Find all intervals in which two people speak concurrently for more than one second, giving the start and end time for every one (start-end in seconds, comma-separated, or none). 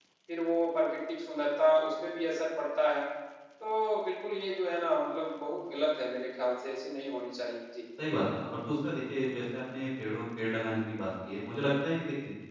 none